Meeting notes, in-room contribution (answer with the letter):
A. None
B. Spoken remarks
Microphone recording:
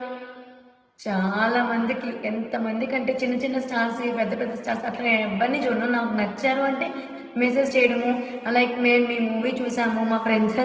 A